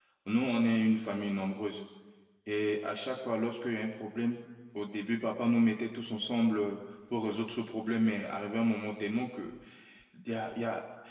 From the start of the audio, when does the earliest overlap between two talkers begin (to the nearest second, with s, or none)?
none